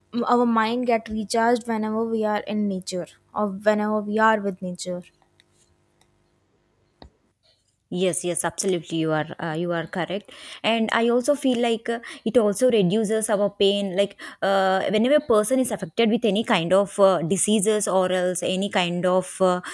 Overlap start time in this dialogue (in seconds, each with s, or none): none